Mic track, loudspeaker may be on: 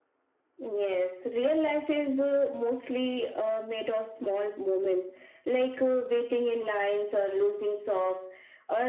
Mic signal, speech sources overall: echo only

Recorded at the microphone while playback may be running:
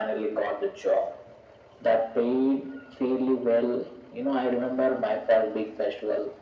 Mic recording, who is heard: echo only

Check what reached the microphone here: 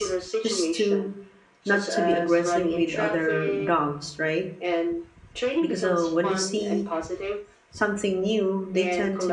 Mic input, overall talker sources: both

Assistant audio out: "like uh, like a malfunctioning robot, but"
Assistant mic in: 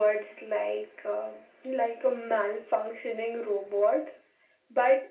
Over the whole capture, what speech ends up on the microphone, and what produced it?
echo only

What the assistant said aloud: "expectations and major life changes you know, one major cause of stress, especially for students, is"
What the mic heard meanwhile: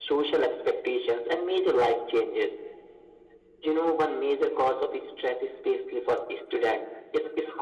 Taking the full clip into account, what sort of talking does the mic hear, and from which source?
echo only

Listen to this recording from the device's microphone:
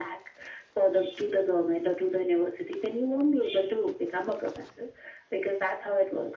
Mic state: echo only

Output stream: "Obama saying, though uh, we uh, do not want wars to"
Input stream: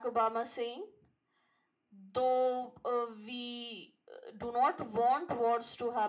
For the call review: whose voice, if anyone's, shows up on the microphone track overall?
echo only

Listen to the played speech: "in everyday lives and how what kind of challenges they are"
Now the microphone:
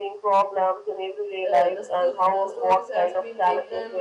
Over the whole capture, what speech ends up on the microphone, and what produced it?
both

